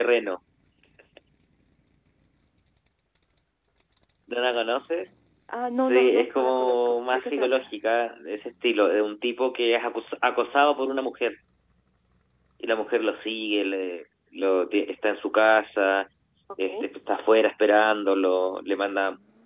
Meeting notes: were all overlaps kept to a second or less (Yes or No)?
No